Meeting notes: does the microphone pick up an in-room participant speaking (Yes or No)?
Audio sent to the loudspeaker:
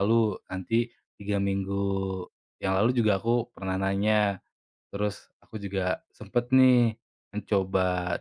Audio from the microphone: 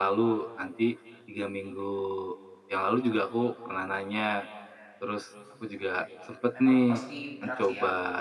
Yes